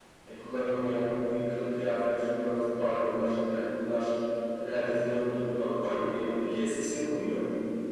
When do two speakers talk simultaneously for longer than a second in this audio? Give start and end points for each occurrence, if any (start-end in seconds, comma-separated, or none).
none